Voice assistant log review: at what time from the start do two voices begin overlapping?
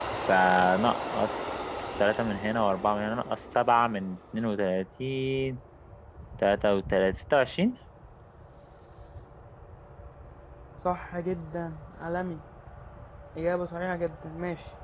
none

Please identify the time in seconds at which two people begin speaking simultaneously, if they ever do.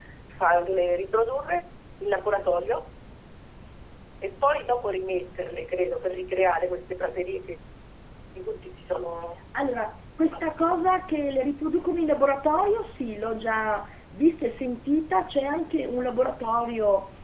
none

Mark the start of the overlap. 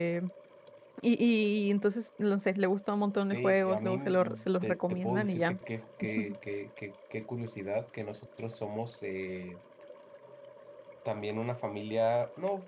3.3 s

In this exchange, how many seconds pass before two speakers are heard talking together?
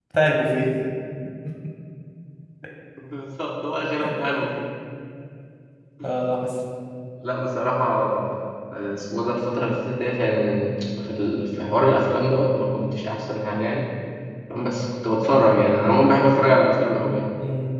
none

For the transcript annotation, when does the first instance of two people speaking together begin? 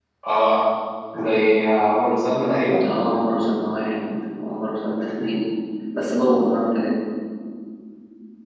none

